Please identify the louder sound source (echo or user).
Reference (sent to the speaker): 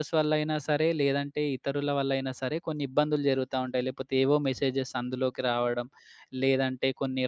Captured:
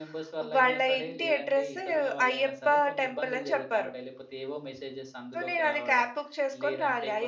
user